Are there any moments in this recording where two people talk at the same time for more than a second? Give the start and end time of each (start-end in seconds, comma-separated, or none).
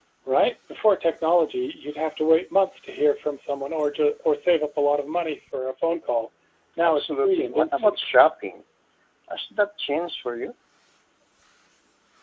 6.8-8.1